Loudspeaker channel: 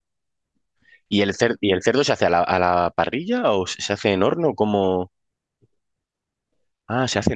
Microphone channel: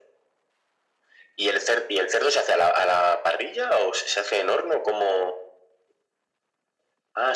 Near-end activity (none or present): none